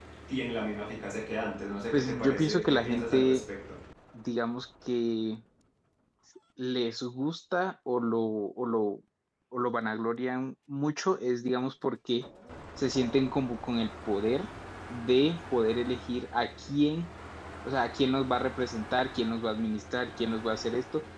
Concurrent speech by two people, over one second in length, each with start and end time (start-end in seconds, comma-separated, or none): 1.9-3.4